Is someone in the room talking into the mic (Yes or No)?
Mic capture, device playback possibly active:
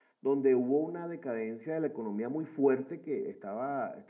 Yes